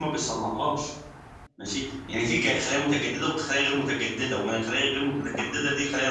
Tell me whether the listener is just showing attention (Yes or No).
Yes